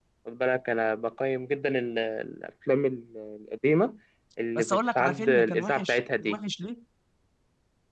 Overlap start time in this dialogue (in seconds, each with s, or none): 4.5 s